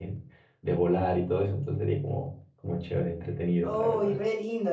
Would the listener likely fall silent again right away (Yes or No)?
No